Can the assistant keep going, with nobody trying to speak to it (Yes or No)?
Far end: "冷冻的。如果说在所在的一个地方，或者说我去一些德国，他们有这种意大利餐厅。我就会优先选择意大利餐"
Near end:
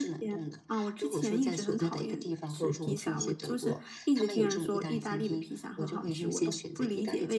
No